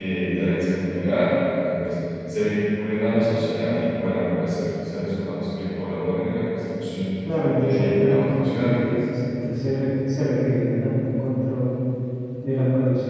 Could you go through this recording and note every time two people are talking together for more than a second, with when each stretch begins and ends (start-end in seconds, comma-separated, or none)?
7.5-8.7